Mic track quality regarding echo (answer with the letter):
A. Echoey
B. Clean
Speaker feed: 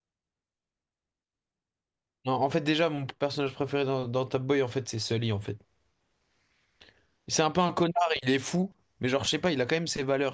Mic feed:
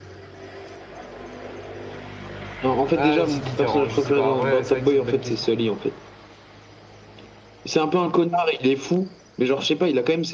A